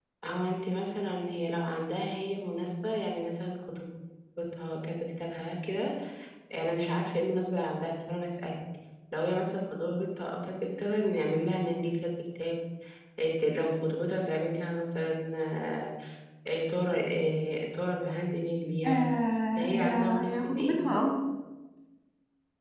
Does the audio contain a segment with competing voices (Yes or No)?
Yes